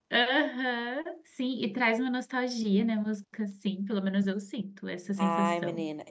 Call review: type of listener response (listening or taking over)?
taking over